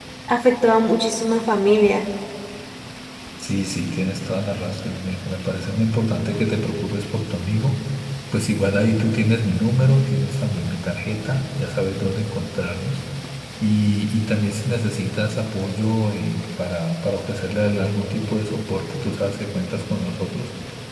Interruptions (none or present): none